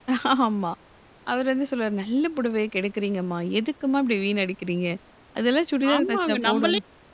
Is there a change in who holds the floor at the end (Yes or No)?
Yes